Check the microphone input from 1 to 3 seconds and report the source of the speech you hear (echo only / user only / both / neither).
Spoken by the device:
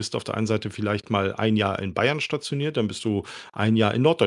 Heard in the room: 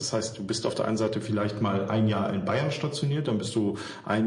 echo only